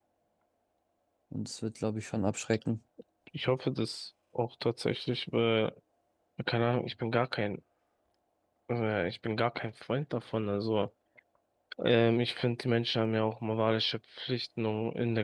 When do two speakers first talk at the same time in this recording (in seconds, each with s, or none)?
none